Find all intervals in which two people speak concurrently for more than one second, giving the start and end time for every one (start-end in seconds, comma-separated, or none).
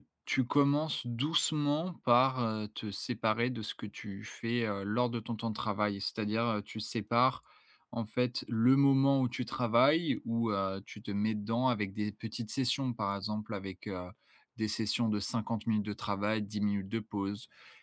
none